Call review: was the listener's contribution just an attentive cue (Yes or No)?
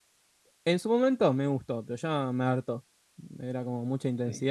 No